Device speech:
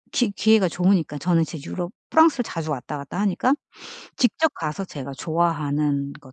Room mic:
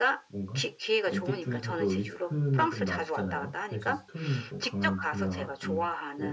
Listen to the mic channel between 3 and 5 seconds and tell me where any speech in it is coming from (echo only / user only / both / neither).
both